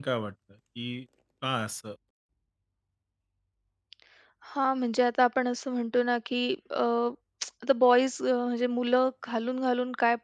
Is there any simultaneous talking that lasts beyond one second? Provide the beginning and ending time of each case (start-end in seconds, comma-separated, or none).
none